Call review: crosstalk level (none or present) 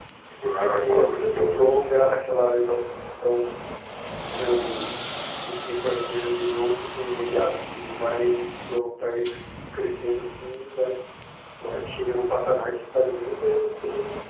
present